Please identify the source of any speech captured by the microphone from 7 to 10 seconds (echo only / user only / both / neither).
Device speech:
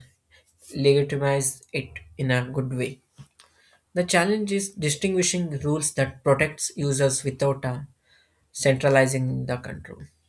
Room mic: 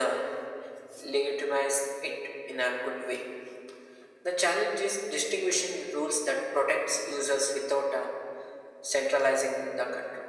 echo only